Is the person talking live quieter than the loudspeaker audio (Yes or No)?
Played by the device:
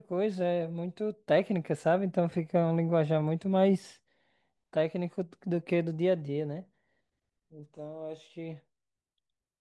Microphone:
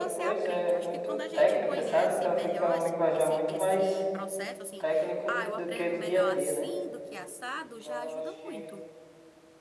Yes